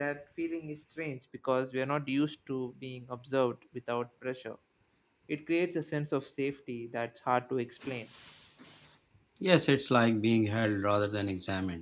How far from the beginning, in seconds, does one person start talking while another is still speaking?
none

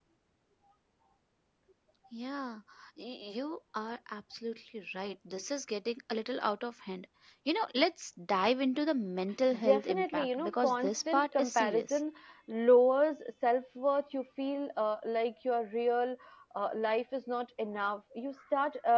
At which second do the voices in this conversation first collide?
9.5 s

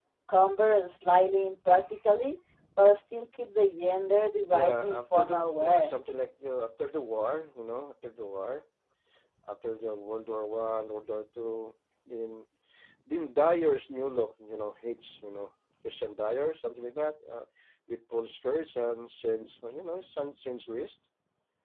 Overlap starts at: 4.5 s

